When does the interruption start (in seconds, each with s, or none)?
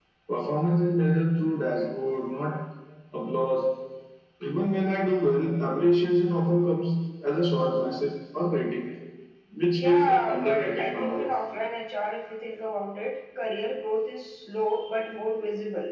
9.7 s